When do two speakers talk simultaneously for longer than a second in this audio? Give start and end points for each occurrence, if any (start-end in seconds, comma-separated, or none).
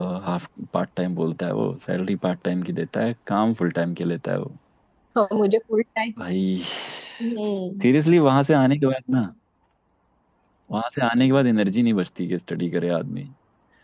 none